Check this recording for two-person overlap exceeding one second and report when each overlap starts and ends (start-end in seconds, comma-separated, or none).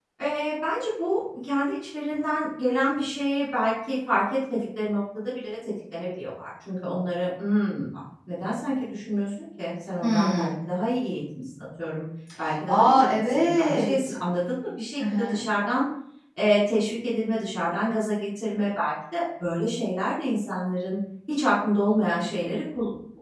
12.7-14.1